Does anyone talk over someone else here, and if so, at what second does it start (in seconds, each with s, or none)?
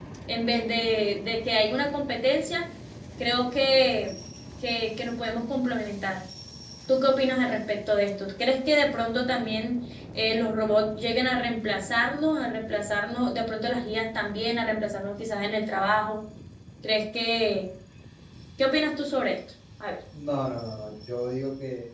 none